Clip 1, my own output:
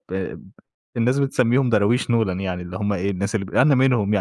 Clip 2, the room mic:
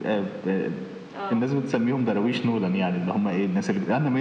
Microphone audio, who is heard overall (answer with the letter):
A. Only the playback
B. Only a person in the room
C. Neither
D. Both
D